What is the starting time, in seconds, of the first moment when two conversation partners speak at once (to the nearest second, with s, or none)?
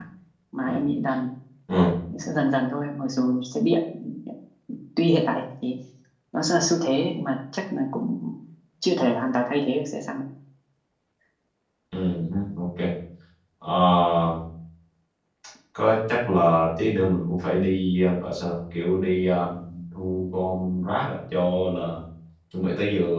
none